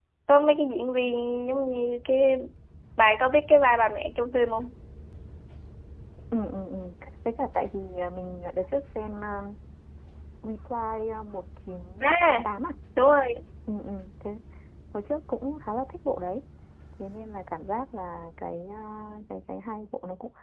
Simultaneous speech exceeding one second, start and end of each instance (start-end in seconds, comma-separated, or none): none